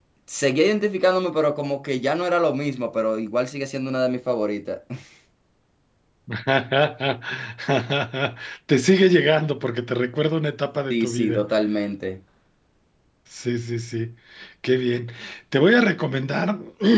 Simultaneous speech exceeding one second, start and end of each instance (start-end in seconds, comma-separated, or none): none